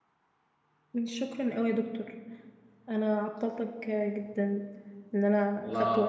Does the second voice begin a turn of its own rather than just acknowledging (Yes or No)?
Yes